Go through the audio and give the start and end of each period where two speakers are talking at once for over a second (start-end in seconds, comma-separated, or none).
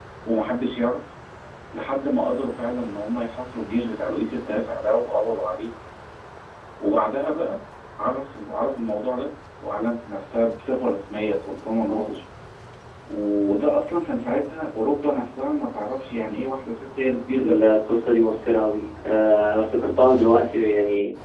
none